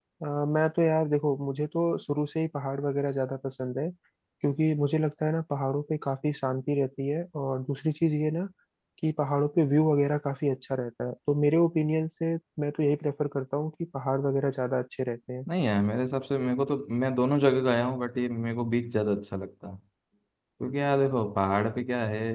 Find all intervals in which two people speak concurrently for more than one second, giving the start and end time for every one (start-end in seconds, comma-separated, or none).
none